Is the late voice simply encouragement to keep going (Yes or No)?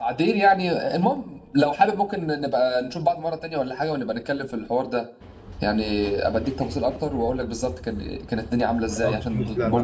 No